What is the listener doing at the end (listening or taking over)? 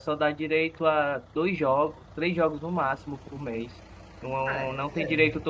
listening